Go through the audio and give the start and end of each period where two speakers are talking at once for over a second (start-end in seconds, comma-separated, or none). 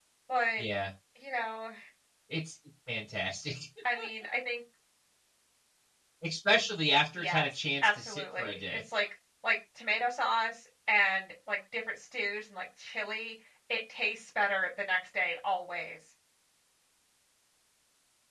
7.2-8.8